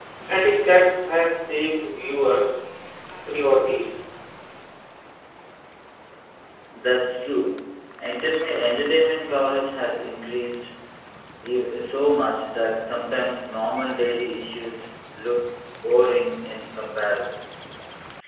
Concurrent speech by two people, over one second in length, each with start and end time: none

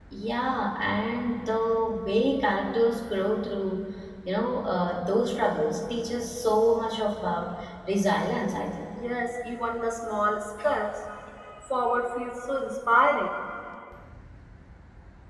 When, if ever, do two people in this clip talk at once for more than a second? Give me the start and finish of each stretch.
none

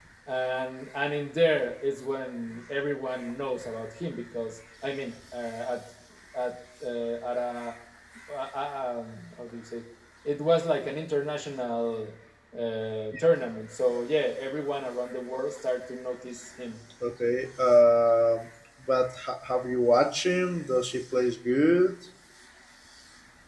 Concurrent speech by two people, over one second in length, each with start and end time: none

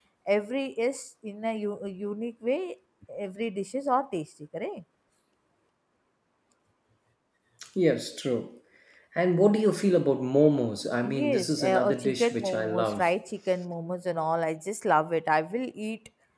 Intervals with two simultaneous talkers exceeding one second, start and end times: 11.0-13.1

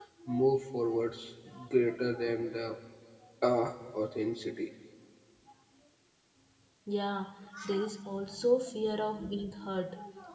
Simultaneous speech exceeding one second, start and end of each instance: none

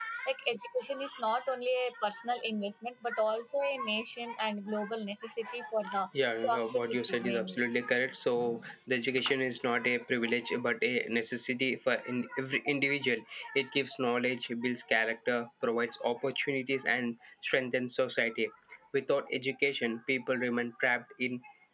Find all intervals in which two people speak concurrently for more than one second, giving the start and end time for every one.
6.5-7.7

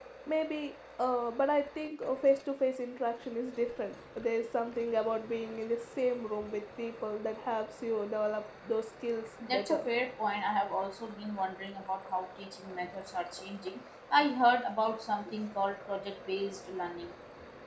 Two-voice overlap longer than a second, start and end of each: none

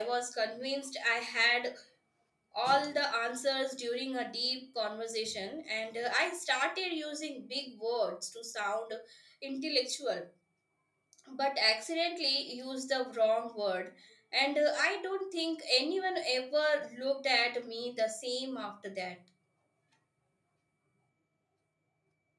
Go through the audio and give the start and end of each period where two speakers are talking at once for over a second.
none

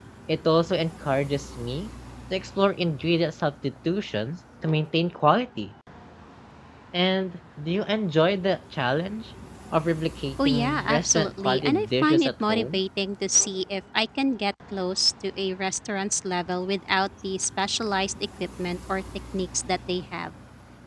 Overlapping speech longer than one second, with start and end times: 10.4-12.8

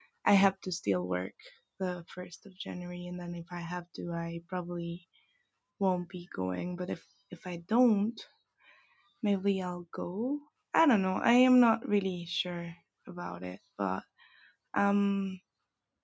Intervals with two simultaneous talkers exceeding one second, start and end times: none

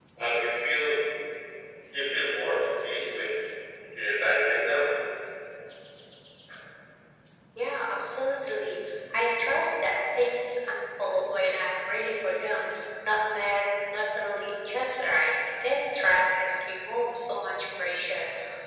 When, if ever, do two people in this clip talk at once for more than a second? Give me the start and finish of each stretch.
none

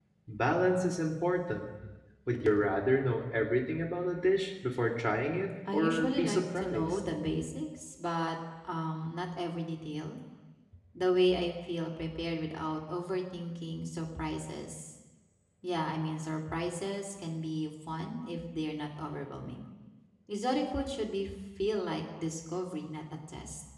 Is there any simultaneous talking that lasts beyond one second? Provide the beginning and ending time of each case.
5.7-7.0

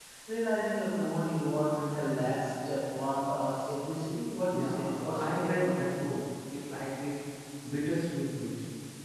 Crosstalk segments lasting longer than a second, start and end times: 4.5-5.8

